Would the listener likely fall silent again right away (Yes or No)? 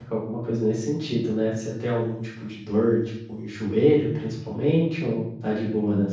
No